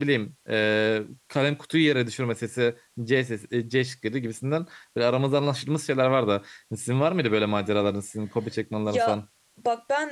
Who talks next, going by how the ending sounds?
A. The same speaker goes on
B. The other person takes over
B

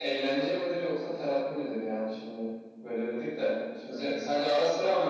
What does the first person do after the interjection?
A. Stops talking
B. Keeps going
B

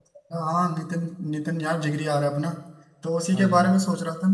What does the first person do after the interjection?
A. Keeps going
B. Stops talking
A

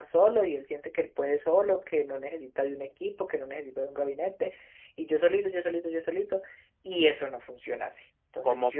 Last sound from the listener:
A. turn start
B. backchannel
A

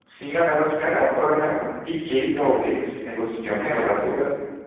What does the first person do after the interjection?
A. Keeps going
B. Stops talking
B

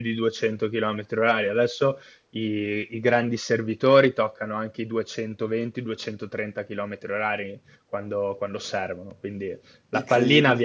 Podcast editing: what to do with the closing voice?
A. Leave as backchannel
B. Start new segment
A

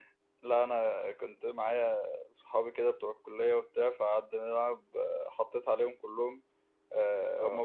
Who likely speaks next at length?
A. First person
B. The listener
A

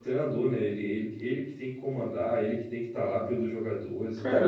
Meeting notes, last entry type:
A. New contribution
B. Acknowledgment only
A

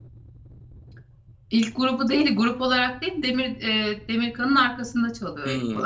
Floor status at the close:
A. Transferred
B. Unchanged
A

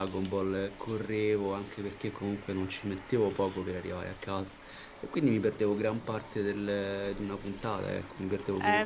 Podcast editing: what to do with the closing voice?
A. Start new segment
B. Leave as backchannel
A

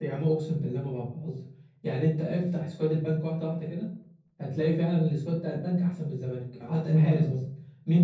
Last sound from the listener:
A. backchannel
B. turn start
A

